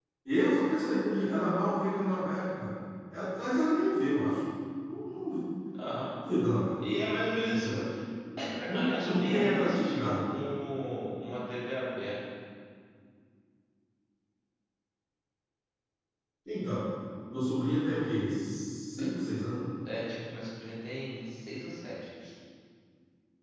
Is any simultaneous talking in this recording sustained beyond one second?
Yes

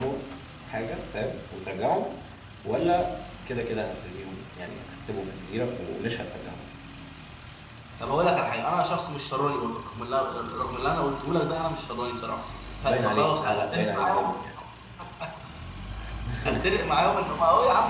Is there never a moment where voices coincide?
No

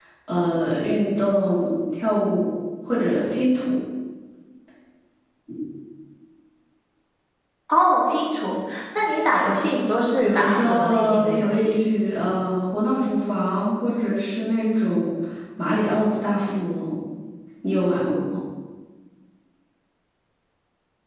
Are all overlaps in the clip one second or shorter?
No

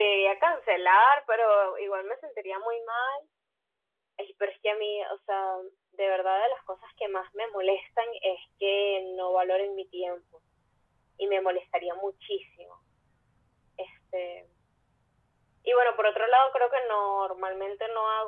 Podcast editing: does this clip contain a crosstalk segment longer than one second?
No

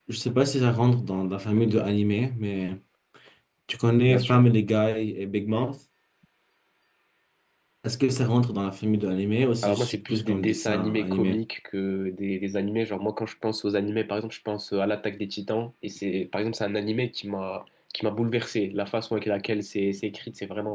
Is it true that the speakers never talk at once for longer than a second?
No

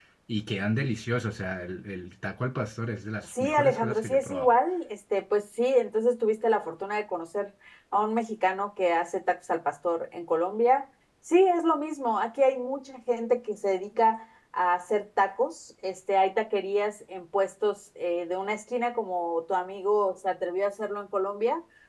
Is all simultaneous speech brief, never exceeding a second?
No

